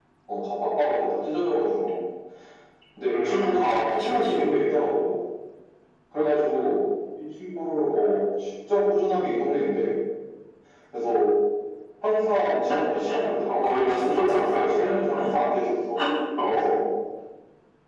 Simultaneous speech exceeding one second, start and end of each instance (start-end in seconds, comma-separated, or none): 3.1-4.5, 13.5-15.0